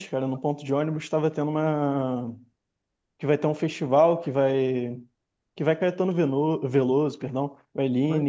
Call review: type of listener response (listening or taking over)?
listening